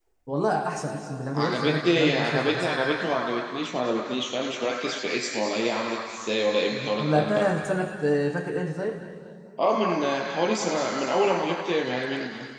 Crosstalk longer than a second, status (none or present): present